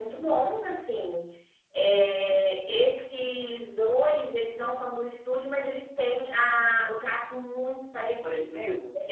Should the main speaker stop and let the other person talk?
Yes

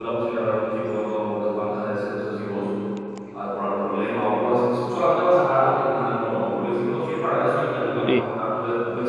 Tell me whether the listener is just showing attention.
Yes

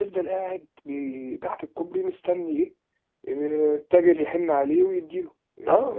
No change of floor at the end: No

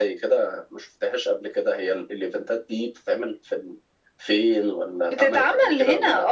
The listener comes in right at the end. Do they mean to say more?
Yes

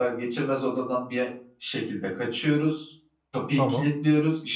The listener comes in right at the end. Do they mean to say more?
No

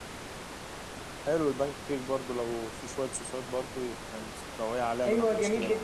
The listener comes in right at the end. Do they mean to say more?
Yes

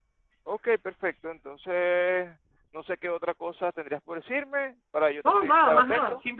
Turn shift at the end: Yes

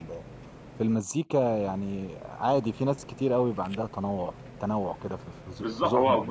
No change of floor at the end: No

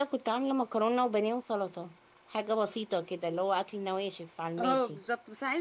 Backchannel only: No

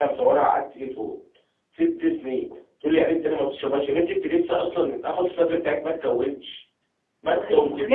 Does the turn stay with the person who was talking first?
No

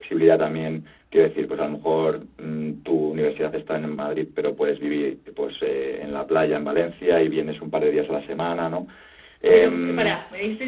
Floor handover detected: Yes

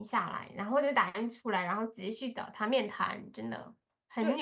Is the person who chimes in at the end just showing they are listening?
No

